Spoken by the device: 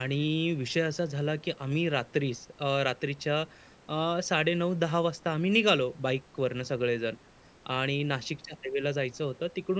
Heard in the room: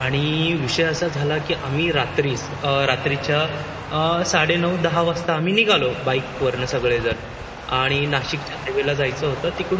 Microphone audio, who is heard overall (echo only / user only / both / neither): echo only